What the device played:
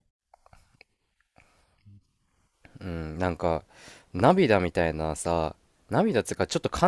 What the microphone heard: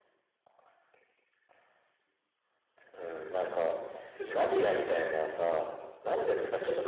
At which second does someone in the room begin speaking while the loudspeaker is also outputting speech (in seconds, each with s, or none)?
4.1 s